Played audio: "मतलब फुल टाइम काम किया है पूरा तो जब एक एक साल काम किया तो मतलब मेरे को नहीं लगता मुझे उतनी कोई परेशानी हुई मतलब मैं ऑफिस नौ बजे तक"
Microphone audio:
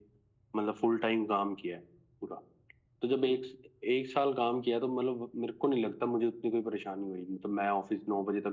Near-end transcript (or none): none